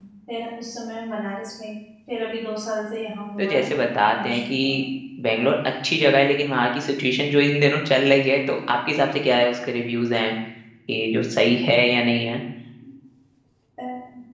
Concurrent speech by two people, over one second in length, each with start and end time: 3.4-4.8

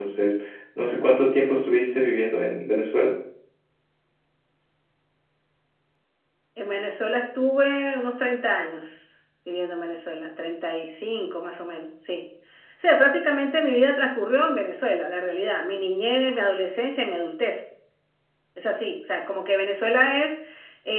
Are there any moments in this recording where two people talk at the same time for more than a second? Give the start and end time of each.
none

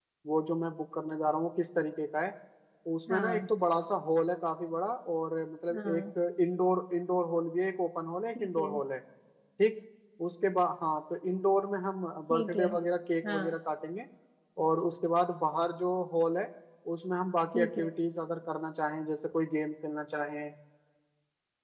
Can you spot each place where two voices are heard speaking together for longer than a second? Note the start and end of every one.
none

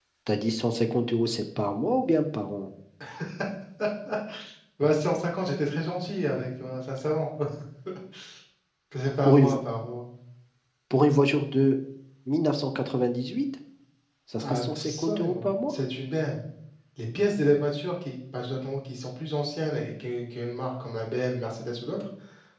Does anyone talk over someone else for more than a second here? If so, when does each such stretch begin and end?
14.4-15.7

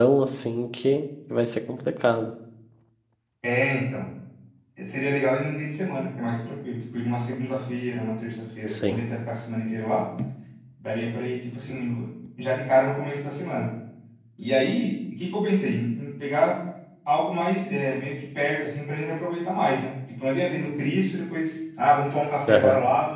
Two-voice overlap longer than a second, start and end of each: none

